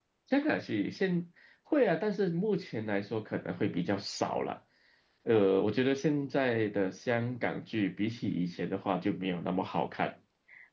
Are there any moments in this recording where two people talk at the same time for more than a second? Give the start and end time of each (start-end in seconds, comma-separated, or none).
none